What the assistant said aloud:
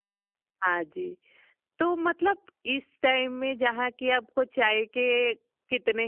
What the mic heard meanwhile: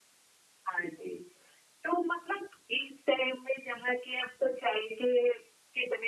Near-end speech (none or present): none